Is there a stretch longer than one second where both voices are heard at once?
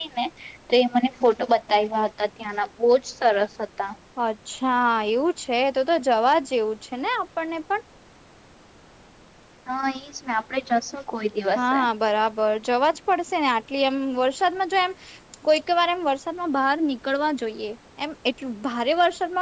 No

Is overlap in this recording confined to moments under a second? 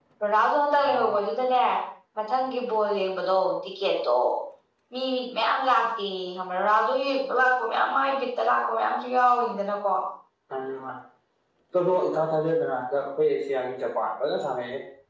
Yes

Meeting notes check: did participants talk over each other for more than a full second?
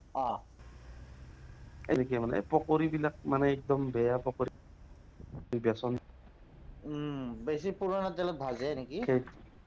No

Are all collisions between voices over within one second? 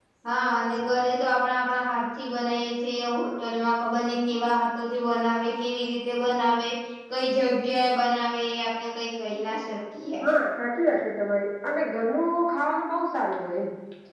Yes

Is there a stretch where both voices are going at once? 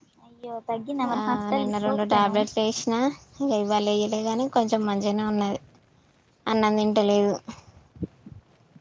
Yes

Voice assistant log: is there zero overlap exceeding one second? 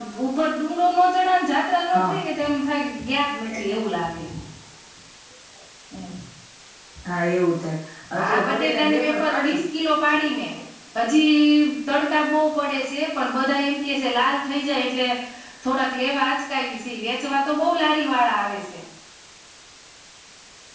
No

